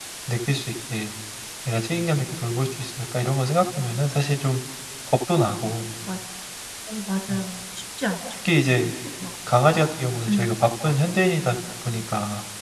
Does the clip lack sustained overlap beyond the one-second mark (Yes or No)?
Yes